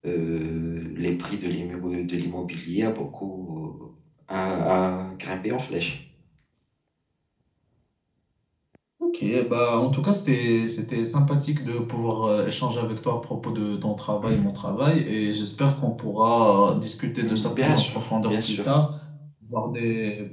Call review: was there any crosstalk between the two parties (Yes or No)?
Yes